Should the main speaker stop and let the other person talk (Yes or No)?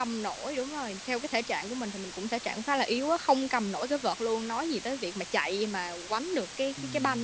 Yes